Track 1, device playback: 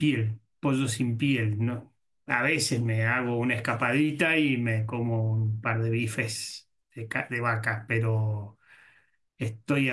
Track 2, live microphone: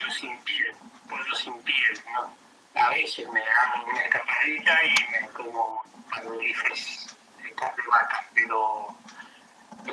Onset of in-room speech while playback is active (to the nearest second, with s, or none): none